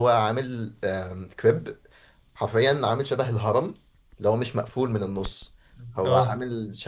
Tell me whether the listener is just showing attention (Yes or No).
Yes